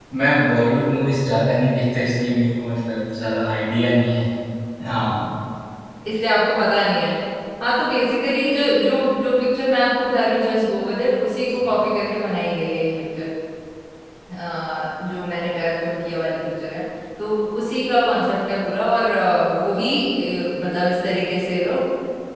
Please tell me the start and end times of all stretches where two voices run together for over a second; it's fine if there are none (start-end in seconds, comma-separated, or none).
none